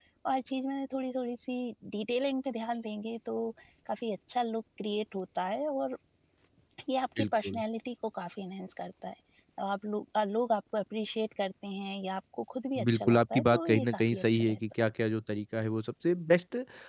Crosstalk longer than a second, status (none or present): present